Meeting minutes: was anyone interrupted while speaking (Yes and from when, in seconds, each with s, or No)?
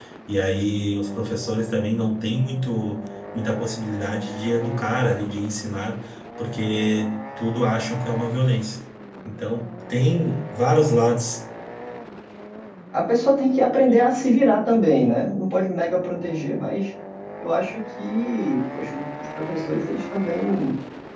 No